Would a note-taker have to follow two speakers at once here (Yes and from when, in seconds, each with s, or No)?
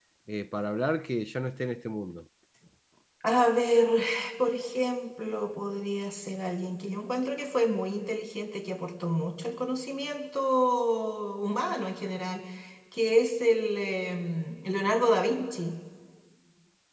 No